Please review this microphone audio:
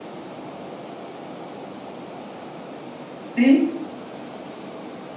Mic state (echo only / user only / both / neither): user only